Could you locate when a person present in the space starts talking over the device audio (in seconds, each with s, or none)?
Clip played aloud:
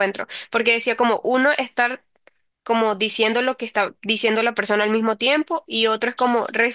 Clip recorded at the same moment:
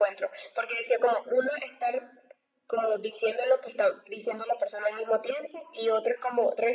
none